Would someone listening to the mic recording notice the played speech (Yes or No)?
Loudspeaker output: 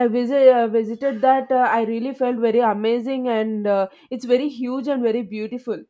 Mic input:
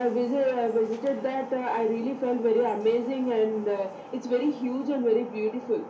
Yes